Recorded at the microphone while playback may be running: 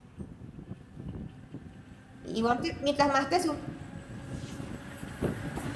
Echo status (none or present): none